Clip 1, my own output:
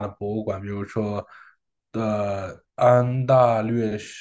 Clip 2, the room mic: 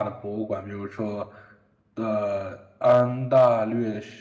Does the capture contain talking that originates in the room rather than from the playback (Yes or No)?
No